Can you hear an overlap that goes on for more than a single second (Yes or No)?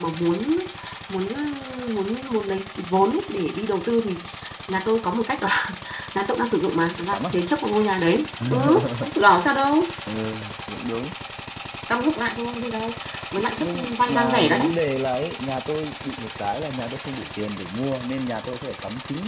Yes